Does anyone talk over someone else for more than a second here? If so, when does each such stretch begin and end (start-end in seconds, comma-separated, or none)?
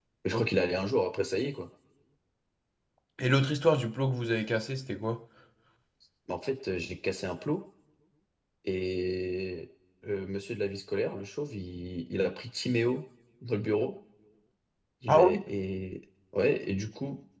none